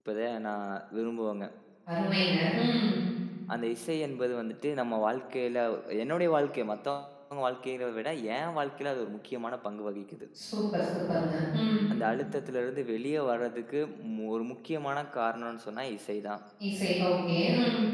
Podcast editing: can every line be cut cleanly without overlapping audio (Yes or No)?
Yes